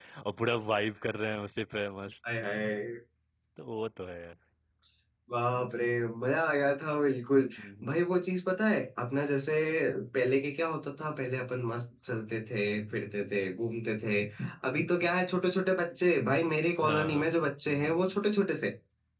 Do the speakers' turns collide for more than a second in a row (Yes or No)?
No